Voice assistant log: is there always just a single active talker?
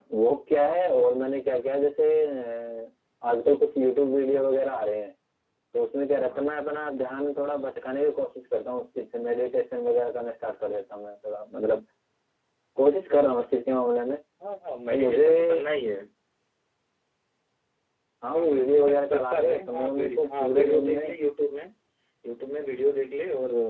No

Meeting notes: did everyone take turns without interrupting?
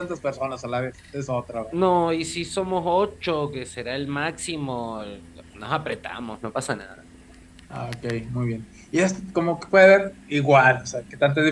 Yes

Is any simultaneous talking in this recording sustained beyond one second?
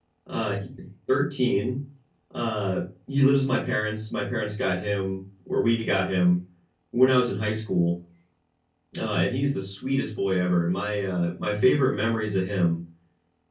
No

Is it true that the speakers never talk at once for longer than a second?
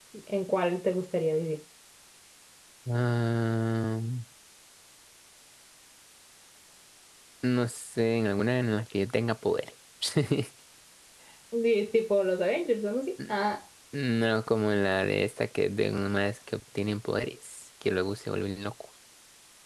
Yes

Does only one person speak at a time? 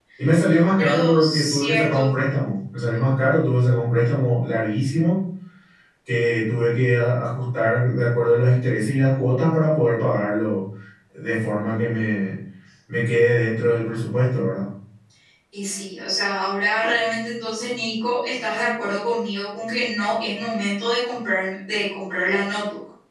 No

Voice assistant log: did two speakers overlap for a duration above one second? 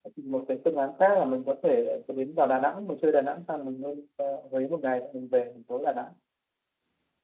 No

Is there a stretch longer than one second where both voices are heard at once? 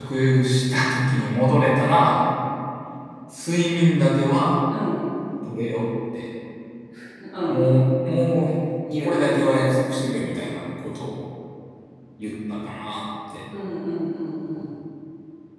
No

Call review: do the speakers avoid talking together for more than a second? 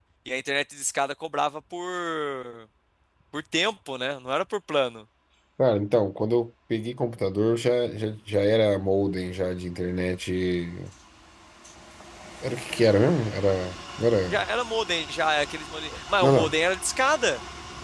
Yes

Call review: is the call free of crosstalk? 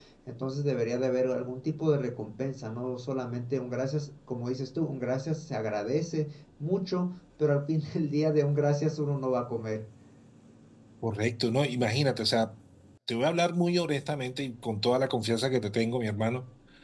Yes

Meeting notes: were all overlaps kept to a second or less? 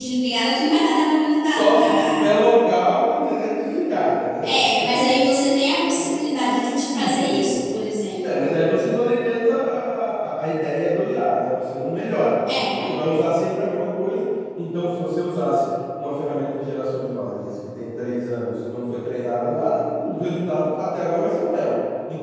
No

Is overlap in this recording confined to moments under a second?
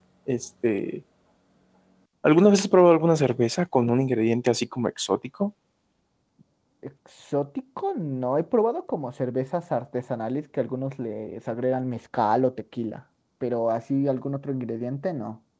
Yes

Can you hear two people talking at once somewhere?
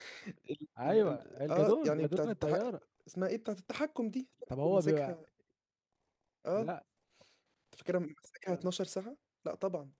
Yes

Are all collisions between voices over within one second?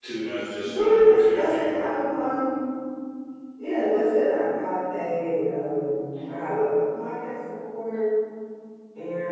No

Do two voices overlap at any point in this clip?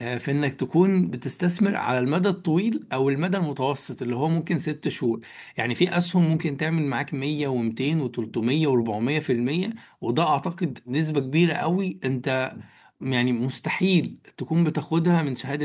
No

